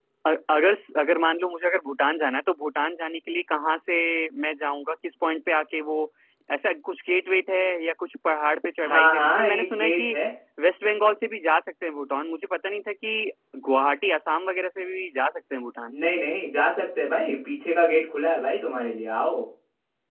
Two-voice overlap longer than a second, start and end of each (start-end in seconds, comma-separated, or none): 8.8-10.2